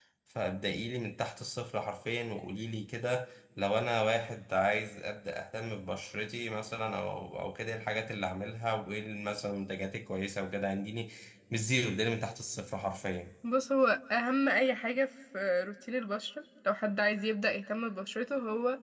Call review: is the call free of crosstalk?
Yes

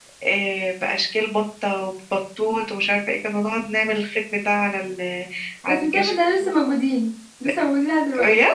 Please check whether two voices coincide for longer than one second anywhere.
No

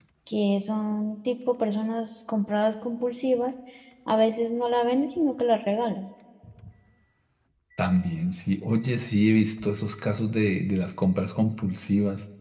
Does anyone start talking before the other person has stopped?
No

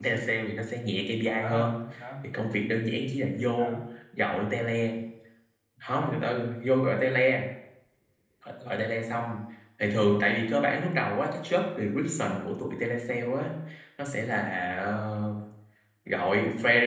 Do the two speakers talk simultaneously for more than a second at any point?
No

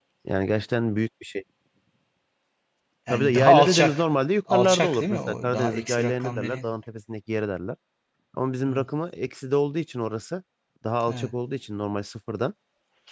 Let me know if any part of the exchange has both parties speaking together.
Yes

